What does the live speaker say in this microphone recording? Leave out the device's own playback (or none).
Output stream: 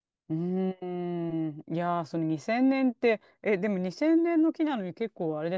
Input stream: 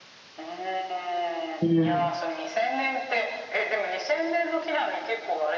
うん、